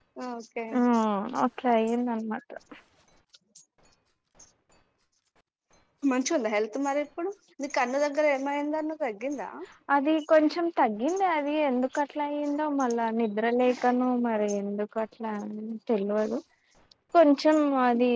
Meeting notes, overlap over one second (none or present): none